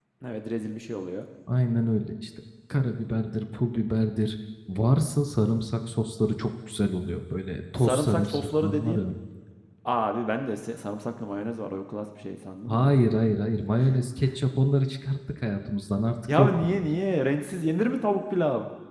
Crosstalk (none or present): present